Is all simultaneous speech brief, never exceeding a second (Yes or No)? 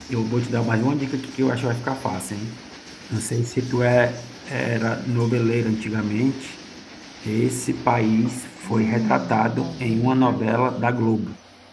No